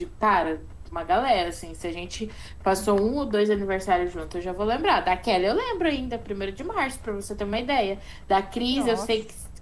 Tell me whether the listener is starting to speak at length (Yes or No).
No